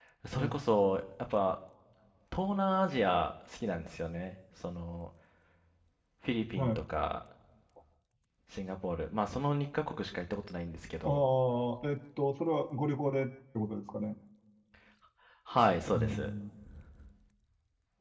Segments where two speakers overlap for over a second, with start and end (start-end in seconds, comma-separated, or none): none